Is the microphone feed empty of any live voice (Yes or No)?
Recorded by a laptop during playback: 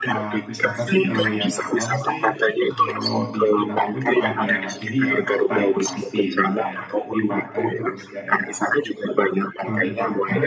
No